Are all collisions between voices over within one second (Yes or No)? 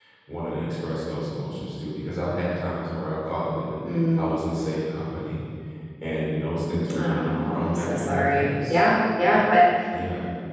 No